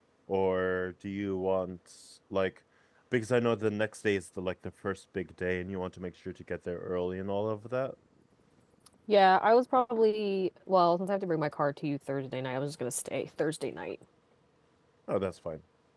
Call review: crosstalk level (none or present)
none